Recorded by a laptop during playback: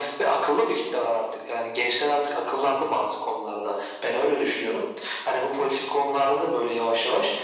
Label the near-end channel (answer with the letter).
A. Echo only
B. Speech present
A